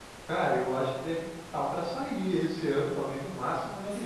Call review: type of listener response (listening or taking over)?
taking over